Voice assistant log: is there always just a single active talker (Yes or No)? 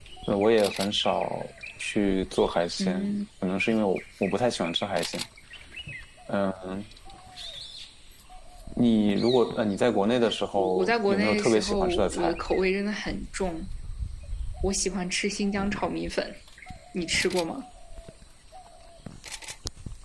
No